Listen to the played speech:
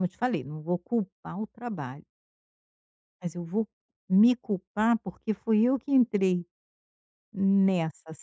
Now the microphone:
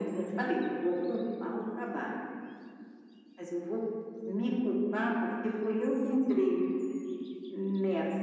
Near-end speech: none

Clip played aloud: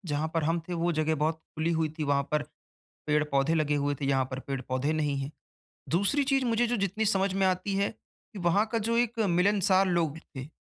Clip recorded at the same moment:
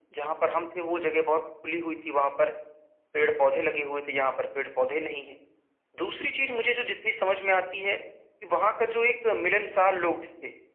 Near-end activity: none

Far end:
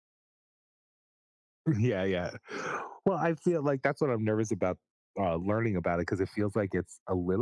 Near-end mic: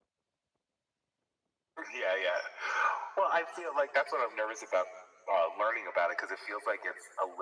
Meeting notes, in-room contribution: none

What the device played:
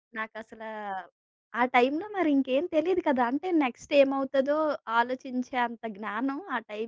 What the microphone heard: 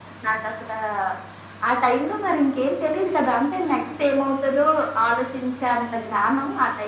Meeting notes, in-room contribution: none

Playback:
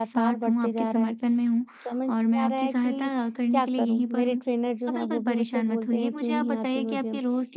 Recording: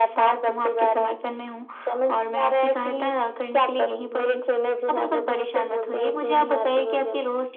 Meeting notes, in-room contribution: none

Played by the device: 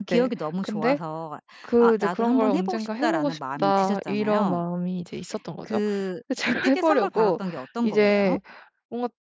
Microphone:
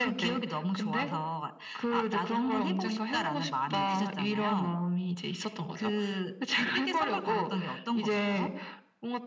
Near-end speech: present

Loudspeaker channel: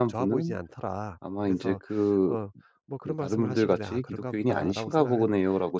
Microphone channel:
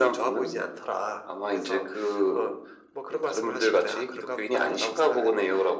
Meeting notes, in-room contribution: none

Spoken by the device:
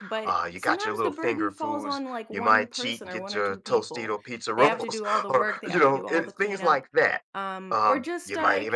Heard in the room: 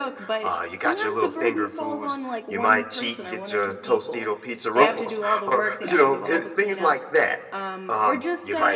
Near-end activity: none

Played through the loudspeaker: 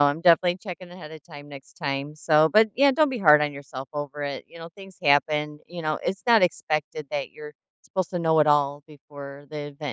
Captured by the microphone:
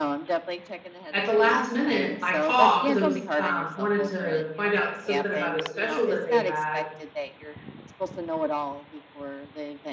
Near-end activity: present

